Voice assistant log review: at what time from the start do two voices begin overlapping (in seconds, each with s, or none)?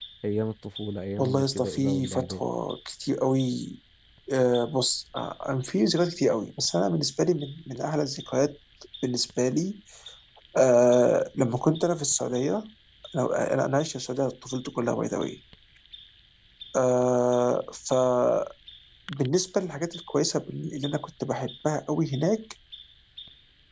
1.2 s